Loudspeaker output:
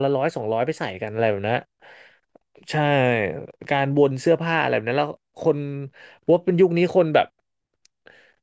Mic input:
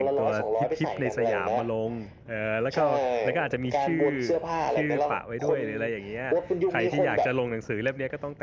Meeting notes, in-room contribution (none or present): present